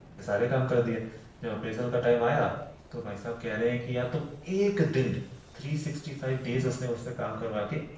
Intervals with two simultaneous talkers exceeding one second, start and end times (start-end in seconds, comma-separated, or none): none